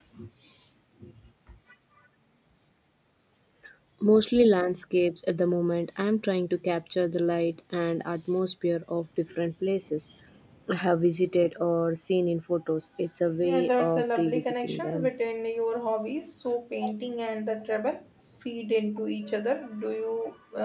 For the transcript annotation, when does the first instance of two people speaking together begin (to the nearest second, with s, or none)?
13 s